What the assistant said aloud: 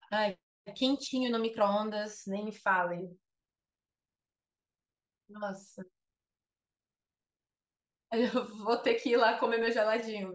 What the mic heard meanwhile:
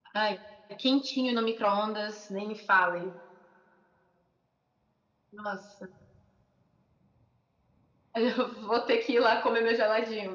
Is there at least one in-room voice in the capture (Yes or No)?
No